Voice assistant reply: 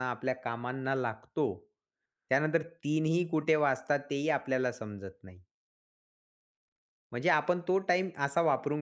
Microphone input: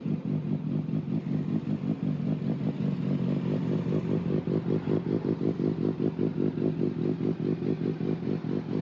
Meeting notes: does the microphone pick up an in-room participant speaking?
No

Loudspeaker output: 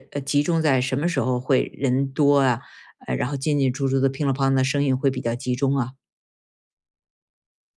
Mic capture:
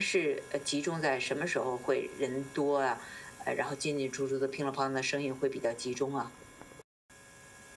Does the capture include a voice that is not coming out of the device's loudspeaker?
No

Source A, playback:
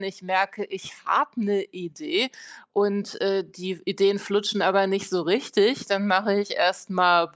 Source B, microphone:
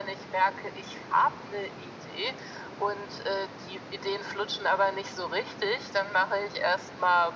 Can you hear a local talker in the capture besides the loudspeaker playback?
No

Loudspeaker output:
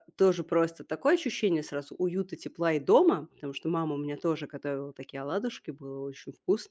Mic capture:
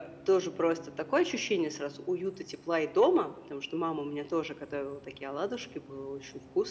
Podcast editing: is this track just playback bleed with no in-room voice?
Yes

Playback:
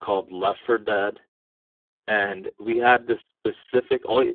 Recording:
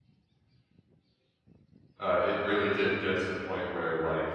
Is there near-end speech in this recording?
Yes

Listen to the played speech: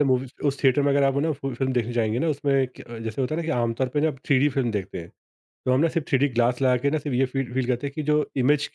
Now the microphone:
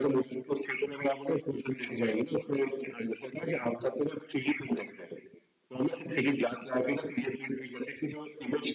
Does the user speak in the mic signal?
No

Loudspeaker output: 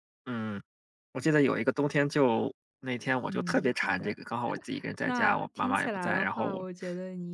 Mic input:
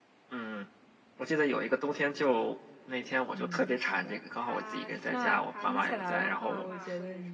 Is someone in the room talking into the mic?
Yes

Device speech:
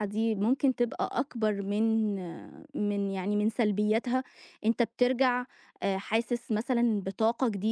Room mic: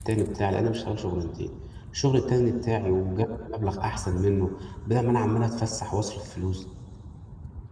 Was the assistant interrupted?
Yes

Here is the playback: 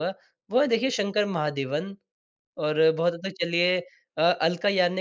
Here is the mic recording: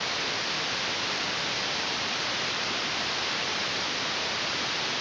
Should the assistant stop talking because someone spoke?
No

